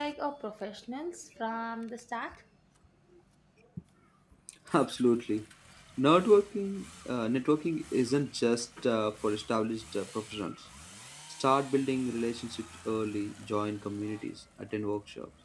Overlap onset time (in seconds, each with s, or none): none